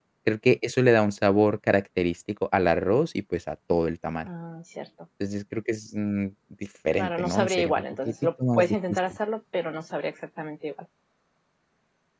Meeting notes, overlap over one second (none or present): present